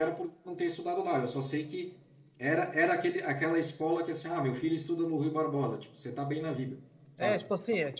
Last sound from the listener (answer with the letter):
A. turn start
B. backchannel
A